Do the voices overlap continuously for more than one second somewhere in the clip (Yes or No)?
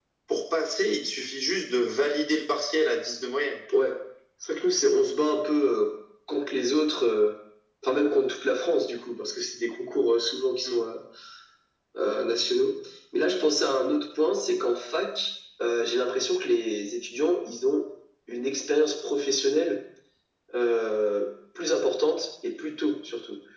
No